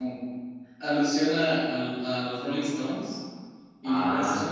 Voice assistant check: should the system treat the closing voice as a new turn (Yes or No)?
No